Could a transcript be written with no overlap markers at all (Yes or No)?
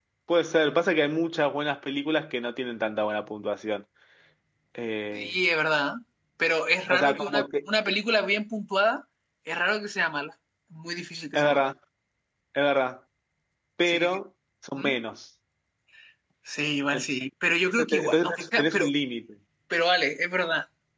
No